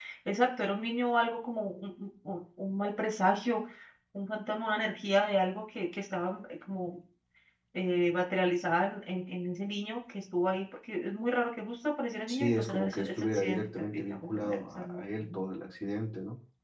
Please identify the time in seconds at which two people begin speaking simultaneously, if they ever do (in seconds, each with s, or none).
12.3 s